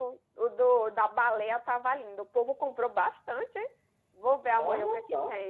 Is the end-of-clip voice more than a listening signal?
No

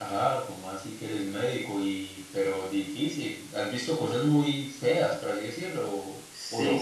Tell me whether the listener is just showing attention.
No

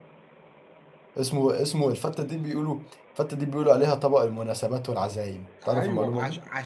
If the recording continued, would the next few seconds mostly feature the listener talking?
Yes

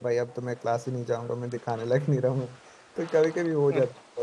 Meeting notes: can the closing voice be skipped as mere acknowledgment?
Yes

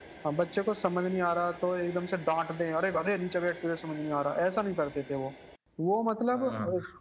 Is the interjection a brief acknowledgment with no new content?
No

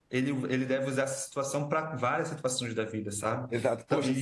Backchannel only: No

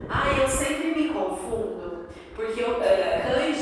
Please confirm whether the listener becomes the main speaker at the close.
No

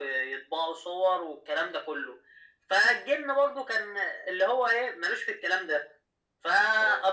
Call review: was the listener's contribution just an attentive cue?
Yes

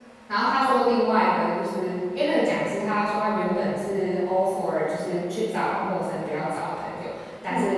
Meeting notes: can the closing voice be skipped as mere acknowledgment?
Yes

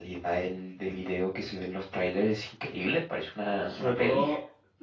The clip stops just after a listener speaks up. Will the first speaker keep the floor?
No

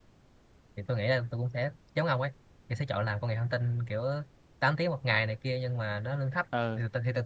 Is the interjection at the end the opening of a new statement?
No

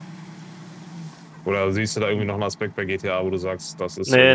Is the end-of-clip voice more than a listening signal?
Yes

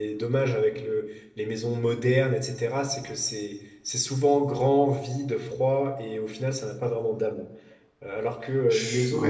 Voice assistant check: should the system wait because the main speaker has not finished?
Yes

